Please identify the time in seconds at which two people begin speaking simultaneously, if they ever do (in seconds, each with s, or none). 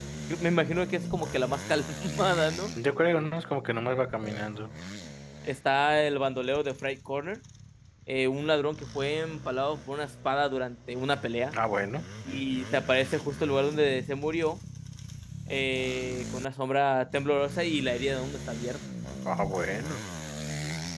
none